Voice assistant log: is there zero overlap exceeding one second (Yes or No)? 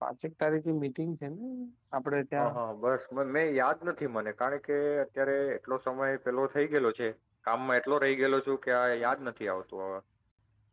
Yes